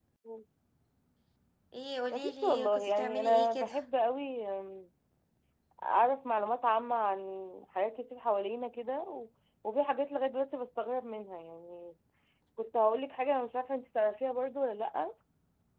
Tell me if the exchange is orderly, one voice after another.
No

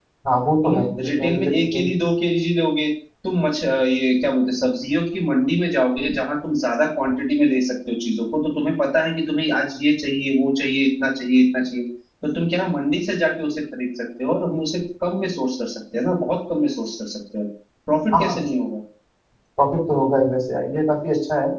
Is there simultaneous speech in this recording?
Yes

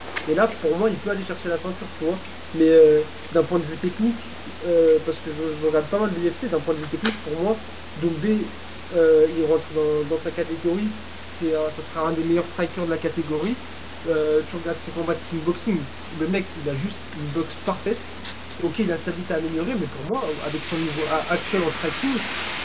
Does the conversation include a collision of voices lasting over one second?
No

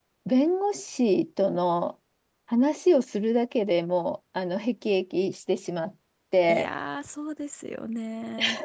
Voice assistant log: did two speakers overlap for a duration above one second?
No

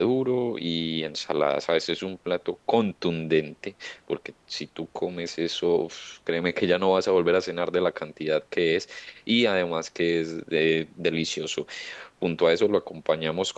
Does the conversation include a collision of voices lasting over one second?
No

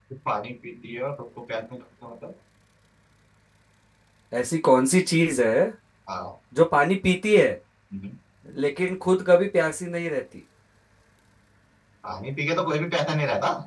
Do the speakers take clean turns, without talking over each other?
Yes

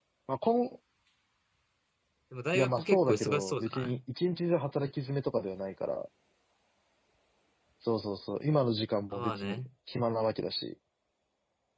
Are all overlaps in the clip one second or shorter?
No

